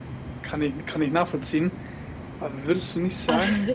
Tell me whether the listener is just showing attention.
Yes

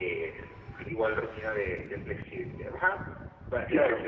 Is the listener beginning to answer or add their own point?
No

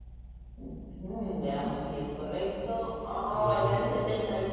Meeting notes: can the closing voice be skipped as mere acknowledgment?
Yes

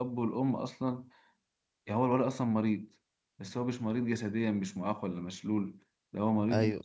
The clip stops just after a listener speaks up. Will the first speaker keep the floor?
Yes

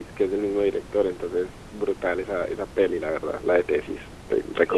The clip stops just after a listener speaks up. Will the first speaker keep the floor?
No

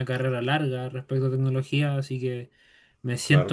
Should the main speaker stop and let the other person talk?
No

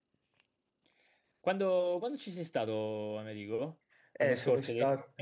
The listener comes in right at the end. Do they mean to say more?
Yes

